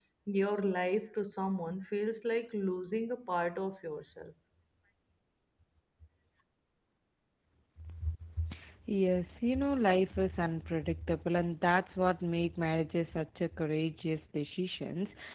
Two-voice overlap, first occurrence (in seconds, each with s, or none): none